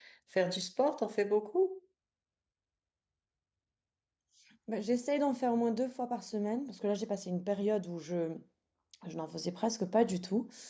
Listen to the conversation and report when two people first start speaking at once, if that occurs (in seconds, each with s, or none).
none